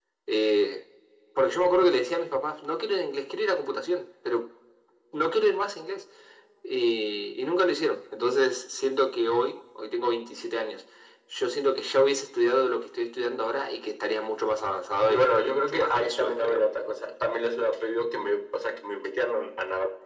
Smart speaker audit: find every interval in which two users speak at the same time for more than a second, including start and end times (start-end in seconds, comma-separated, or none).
15.1-16.7